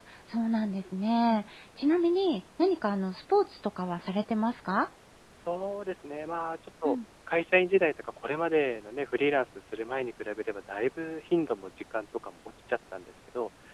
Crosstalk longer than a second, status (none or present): none